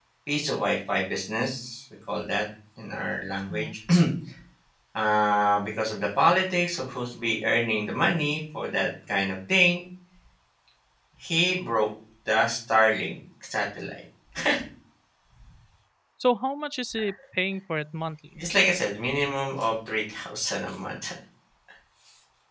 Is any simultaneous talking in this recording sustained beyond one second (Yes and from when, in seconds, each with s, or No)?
No